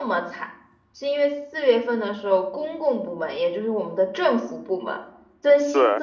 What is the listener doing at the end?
listening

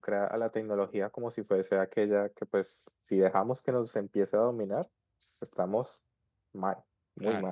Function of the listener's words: taking over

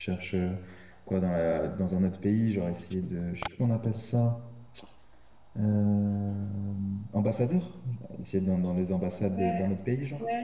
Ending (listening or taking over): taking over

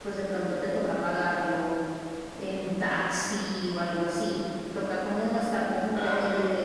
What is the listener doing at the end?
listening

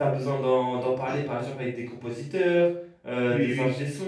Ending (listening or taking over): listening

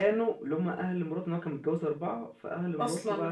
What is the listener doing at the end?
listening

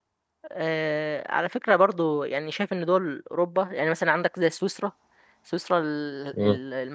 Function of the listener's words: listening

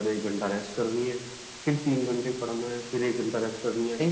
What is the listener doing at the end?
taking over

